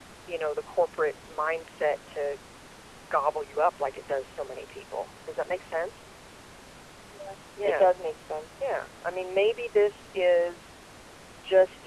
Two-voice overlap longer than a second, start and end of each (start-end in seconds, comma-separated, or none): none